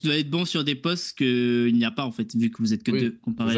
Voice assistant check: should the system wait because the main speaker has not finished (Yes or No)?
No